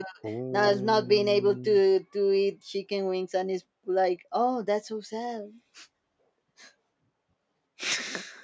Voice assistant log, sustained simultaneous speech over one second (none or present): present